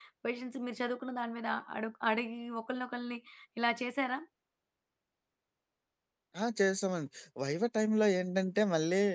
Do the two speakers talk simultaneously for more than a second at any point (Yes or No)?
No